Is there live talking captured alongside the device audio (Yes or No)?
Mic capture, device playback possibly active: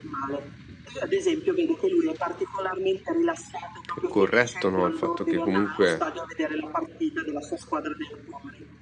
Yes